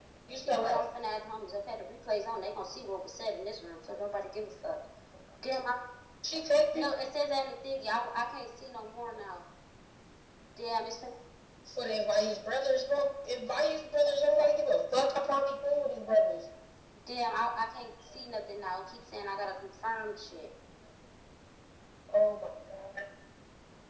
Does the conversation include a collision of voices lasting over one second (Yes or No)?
No